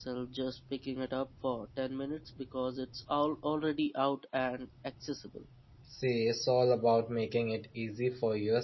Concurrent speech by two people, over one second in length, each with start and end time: none

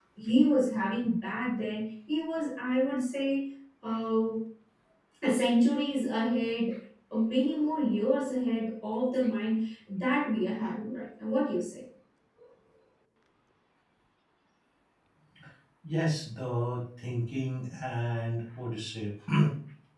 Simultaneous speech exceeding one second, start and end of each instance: none

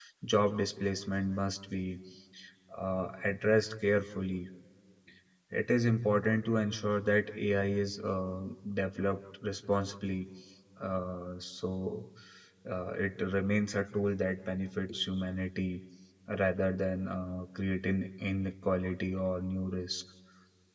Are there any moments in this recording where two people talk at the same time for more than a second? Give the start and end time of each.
none

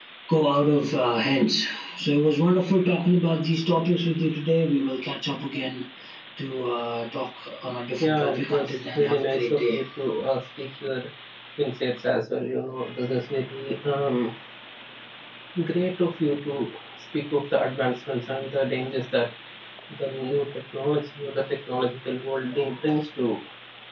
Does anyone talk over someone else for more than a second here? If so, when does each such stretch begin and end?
8.0-9.8

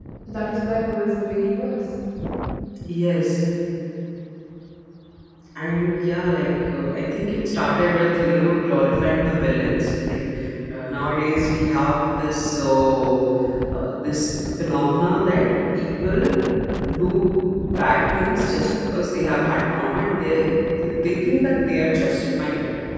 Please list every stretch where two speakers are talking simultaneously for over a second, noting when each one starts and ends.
none

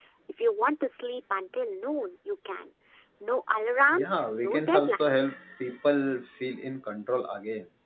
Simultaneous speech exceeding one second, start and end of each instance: 3.9-5.3

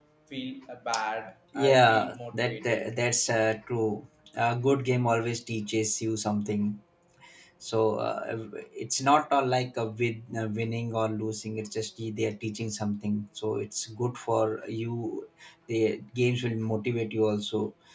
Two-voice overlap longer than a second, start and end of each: 1.6-2.9

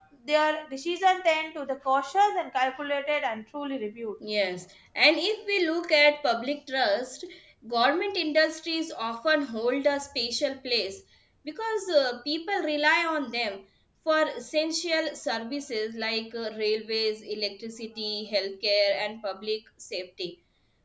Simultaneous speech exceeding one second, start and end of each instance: none

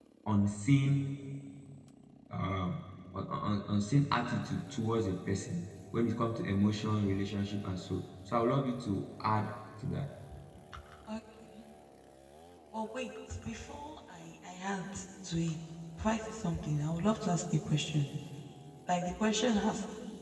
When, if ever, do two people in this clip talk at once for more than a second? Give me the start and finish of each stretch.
none

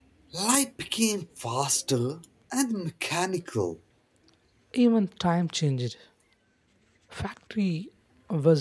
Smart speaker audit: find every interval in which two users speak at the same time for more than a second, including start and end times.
none

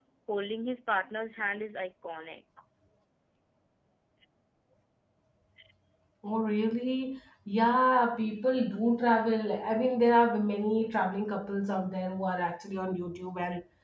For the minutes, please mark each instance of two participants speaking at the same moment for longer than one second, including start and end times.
none

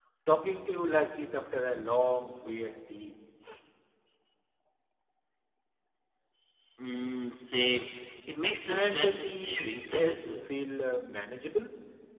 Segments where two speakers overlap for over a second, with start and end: 8.7-10.3

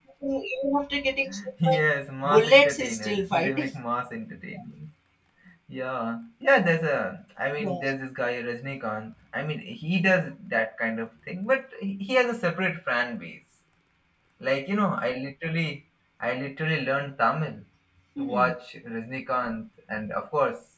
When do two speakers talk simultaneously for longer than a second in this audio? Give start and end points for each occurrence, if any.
2.2-3.7

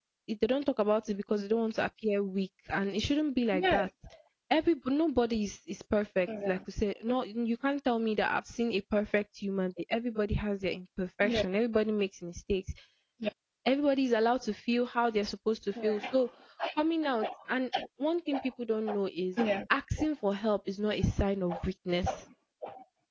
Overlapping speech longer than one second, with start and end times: none

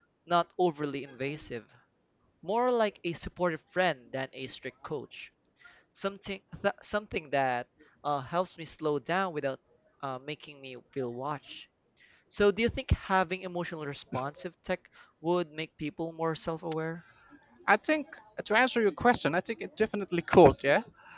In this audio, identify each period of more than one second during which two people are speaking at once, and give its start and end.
none

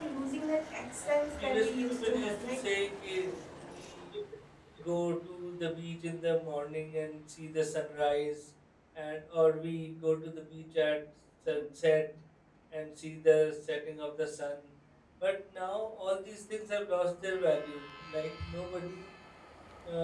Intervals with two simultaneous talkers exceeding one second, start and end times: 1.0-2.6

